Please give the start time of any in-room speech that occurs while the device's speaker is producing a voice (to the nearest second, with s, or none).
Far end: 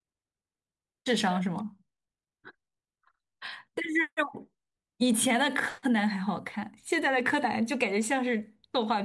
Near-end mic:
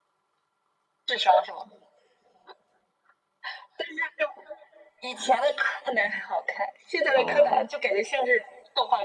7 s